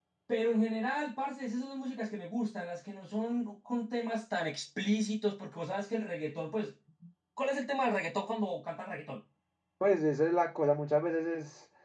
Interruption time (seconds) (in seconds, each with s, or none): none